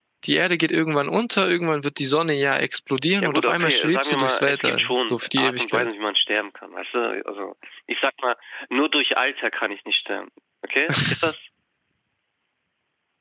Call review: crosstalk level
present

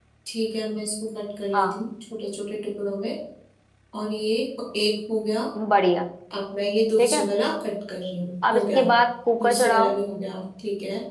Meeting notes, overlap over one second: none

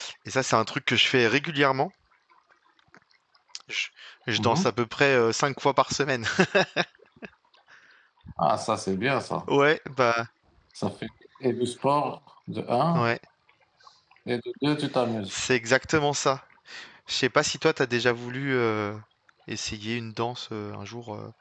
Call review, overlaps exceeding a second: none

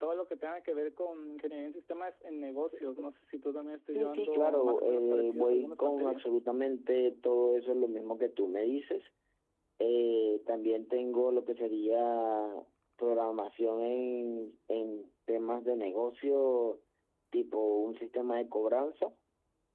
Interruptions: present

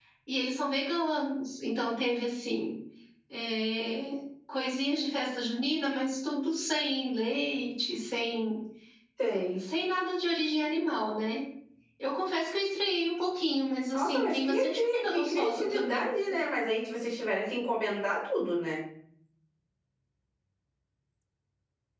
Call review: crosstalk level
present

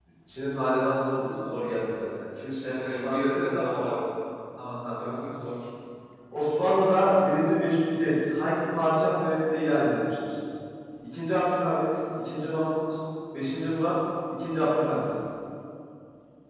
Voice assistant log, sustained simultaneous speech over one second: present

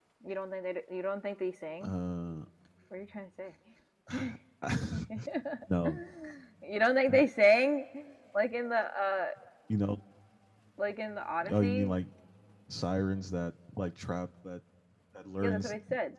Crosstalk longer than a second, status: none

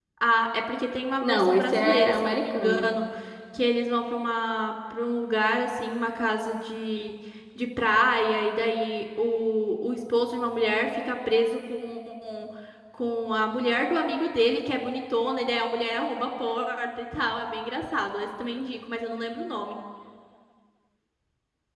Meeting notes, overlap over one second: present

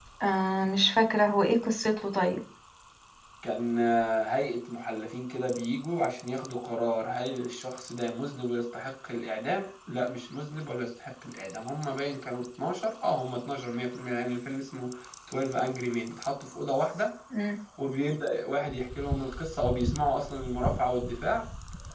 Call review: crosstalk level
none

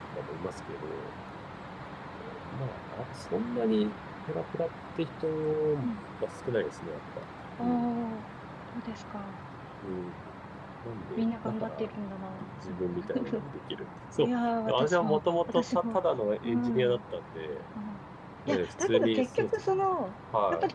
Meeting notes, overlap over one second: present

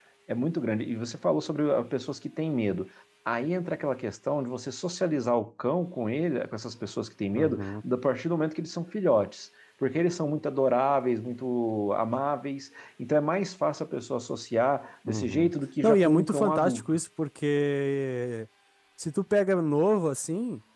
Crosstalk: present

